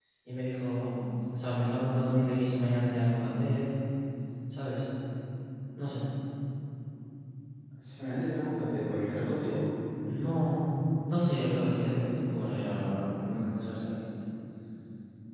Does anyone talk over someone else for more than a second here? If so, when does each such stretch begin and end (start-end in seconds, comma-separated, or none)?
none